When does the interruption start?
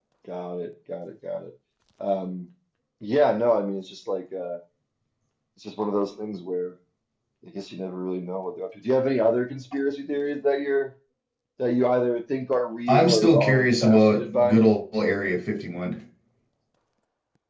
13 s

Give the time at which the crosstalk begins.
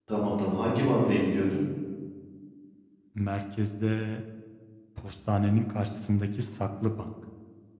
none

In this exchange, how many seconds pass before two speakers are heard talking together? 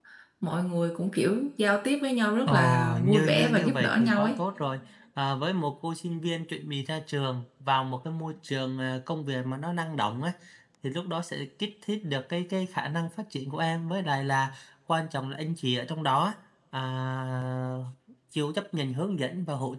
2 s

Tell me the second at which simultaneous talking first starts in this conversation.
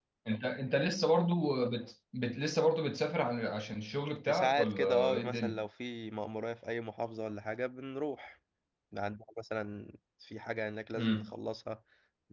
4 s

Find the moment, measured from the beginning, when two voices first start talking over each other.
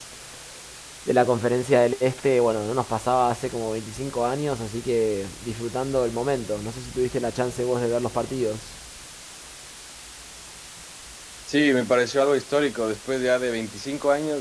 none

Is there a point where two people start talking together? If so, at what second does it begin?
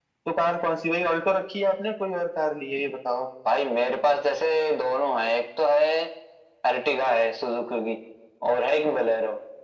none

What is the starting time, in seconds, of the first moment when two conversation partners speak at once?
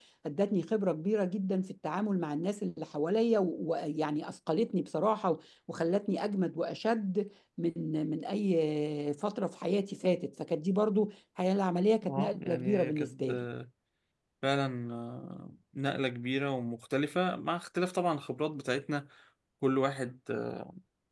12 s

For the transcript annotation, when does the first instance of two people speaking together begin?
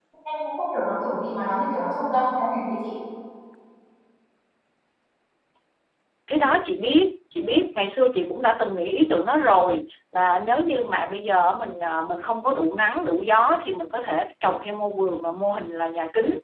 none

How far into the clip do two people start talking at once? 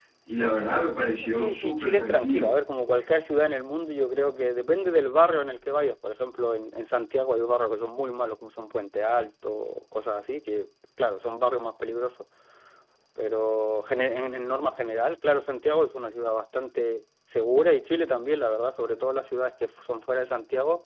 1 s

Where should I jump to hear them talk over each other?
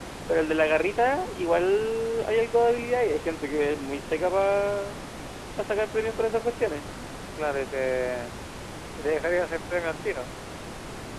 none

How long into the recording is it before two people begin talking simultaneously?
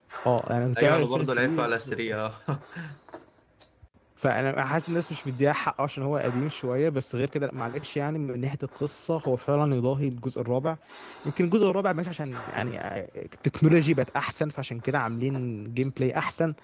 1 s

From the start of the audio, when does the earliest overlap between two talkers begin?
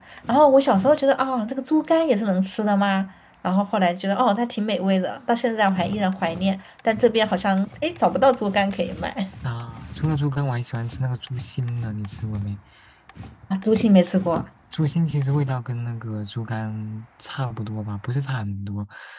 none

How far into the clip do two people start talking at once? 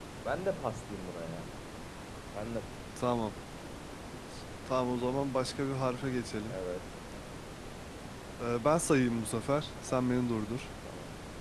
none

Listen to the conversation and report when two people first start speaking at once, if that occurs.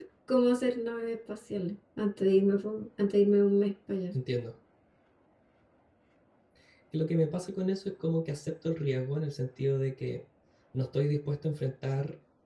none

